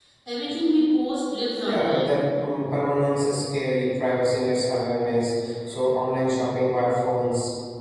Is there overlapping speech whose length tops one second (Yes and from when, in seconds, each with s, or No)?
No